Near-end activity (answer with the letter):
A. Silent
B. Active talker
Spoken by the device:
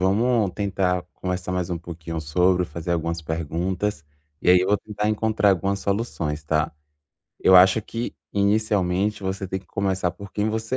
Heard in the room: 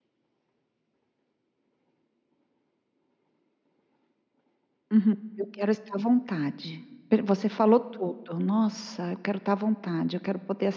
B